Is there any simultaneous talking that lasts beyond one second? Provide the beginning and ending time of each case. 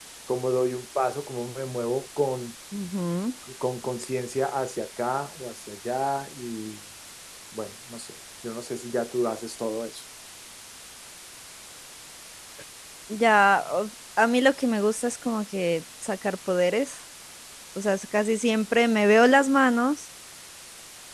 none

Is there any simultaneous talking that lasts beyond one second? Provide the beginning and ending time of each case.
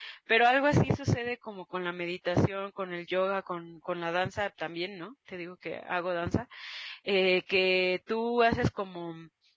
none

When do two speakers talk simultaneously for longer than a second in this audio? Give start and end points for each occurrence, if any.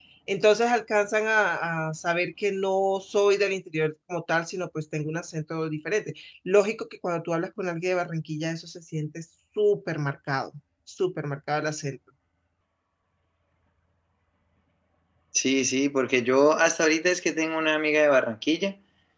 none

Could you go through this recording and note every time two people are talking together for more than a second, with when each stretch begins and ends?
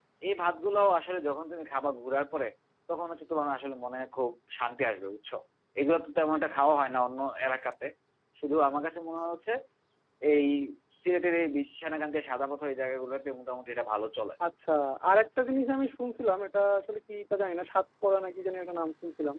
none

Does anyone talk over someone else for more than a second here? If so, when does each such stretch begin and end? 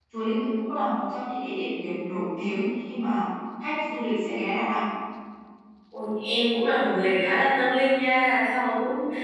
none

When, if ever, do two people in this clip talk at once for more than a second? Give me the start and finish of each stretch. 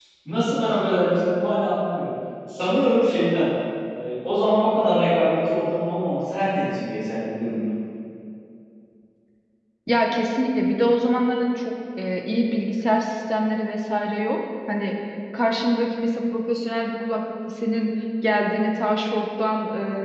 none

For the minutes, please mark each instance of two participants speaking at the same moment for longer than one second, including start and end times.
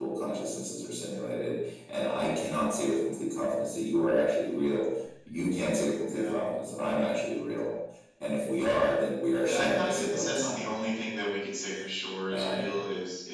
9.4-10.8

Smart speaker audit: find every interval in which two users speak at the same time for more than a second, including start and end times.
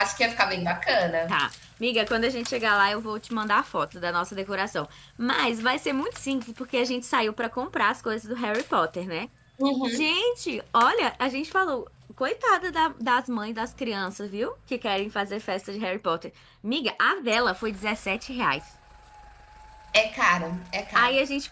none

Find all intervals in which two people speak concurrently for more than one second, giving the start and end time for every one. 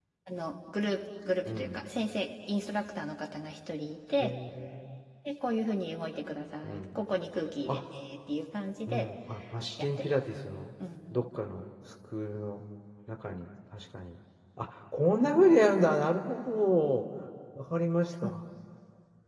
none

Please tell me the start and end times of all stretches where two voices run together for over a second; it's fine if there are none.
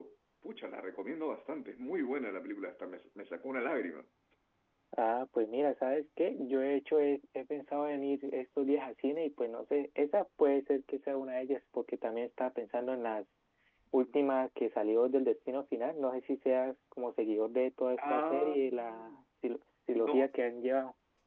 18.0-19.2

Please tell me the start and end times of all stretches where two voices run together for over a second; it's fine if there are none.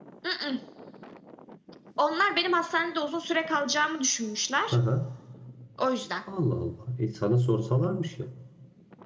none

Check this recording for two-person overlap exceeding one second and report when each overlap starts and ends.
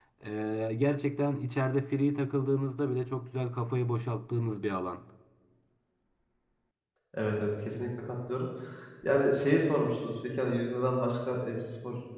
none

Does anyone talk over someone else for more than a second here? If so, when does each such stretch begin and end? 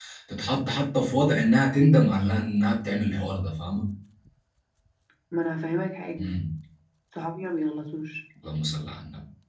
none

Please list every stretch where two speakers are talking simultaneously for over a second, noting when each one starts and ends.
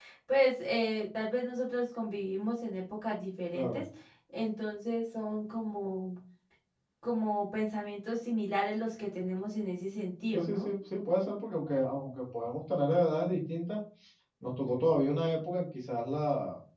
none

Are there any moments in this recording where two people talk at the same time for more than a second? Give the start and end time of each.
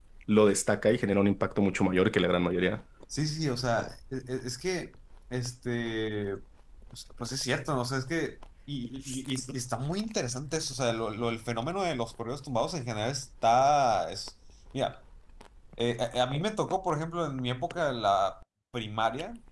none

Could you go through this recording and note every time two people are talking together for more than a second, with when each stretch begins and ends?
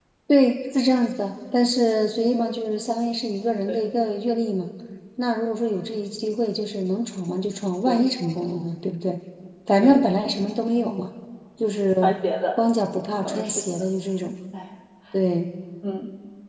none

